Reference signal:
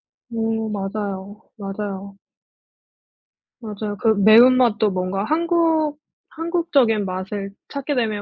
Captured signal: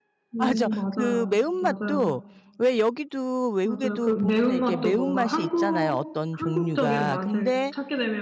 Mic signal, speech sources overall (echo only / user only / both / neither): both